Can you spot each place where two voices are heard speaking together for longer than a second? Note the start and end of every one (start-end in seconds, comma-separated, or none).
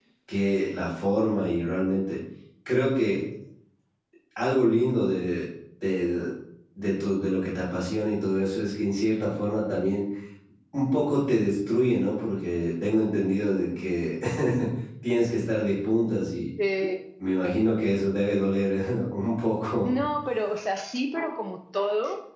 none